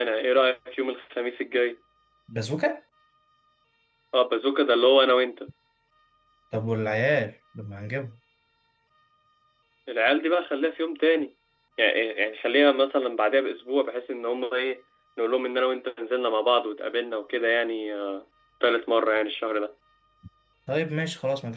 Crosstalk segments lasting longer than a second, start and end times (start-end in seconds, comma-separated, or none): none